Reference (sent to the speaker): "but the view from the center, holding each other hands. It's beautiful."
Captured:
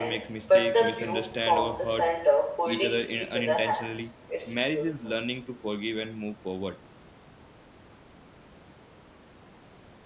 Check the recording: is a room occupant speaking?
Yes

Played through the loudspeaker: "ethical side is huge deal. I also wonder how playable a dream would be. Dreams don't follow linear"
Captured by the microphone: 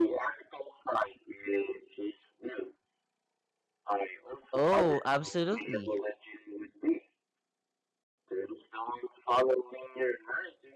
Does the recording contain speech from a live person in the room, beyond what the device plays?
Yes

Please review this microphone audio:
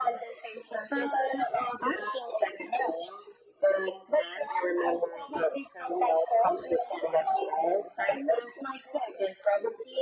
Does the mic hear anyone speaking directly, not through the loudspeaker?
No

